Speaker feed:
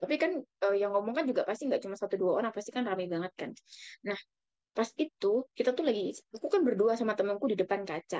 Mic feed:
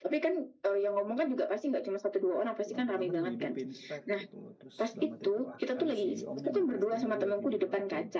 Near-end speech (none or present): present